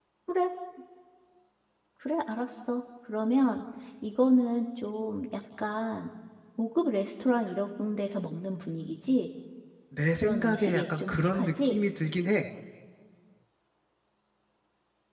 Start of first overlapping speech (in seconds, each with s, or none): 10.2 s